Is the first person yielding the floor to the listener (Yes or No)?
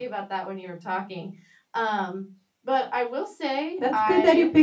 Yes